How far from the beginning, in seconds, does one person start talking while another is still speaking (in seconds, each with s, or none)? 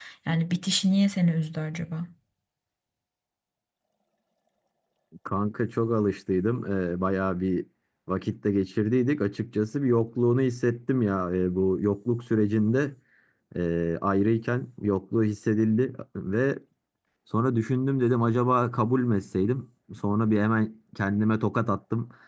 none